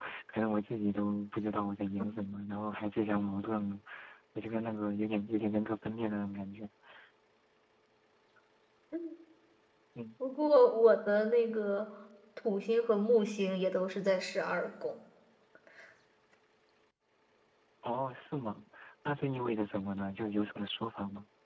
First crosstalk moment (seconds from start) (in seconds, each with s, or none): none